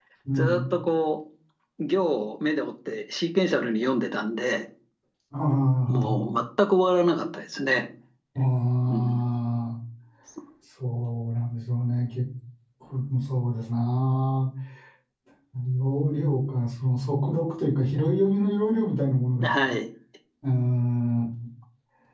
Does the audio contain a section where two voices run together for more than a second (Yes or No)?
No